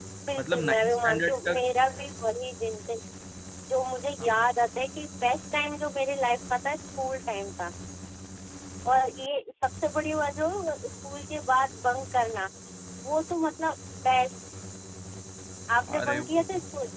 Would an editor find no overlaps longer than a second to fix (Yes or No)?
No